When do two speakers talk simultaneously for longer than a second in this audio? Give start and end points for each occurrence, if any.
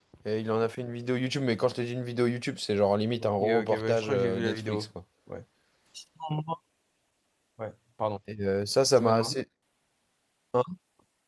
3.2-4.9

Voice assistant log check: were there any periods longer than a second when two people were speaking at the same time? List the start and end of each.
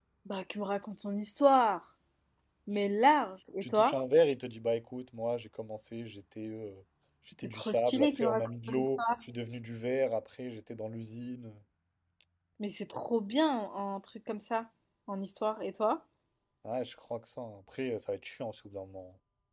7.4-9.0

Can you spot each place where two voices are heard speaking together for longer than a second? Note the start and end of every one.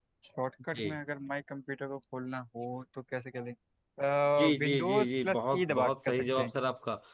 4.6-6.5

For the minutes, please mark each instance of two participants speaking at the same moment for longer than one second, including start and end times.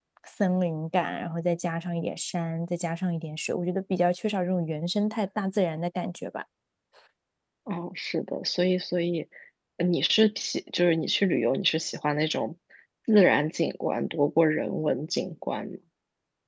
none

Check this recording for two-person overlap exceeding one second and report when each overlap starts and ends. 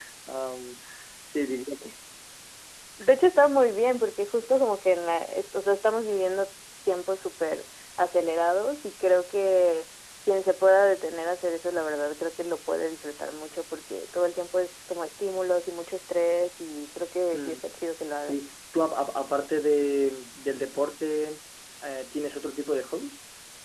none

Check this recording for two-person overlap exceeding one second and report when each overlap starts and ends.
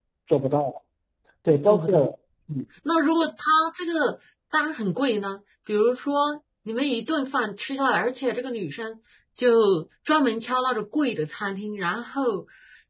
none

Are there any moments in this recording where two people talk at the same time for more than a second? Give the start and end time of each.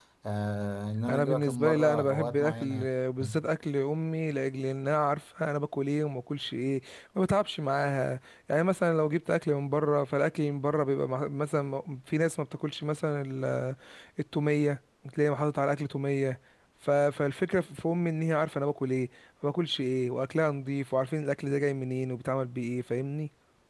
1.1-2.9

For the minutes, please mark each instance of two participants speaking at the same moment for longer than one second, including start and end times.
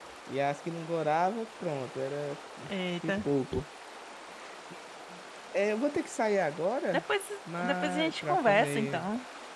7.6-9.1

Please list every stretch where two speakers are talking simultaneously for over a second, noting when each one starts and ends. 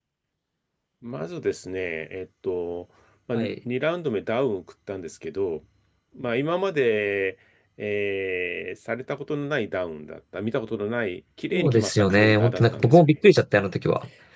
11.5-13.1

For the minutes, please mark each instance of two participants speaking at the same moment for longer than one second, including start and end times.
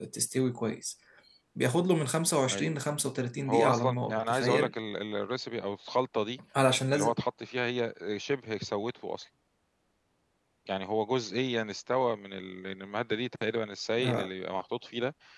3.5-4.7

